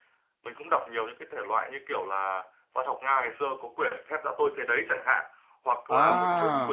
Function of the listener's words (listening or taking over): listening